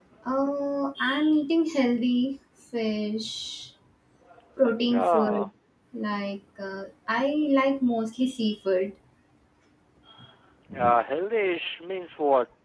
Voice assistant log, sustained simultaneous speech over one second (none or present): none